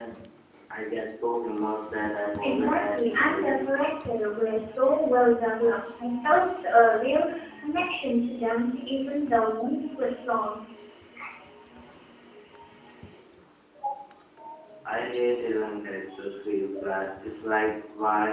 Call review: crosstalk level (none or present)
present